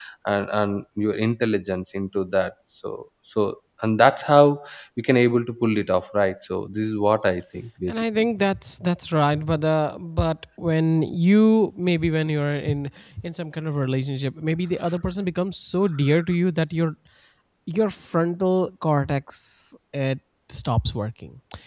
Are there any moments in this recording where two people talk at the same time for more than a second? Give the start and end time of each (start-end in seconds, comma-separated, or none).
none